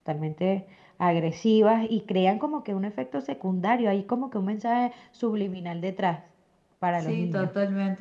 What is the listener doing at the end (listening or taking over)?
taking over